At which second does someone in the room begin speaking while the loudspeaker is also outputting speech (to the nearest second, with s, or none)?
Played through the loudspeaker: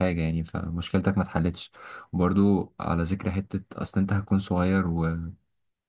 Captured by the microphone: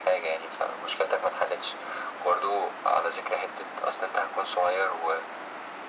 none